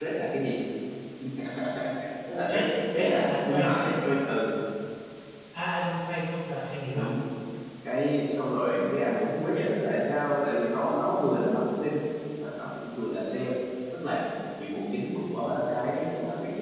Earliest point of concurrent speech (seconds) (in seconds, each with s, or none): 2.5 s